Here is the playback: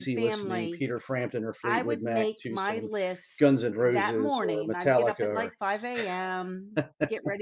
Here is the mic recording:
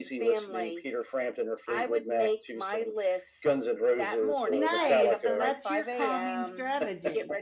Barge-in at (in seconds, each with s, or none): 4.5 s